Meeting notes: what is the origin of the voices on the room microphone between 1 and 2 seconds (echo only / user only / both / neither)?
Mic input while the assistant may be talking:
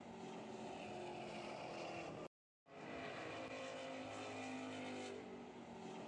neither